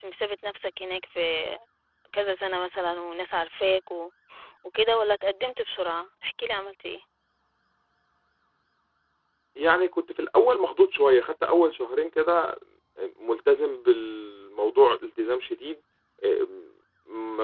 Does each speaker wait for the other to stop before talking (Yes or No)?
Yes